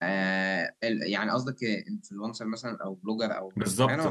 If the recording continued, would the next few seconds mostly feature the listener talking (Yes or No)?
Yes